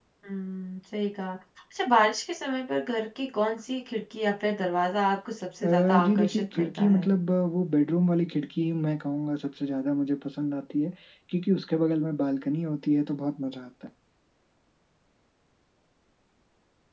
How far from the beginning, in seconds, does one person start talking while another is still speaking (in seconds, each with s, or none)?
5.6 s